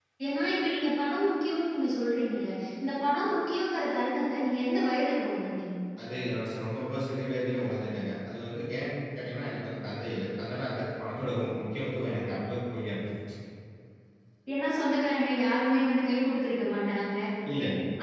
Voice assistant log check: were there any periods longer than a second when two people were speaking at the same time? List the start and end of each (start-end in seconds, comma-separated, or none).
none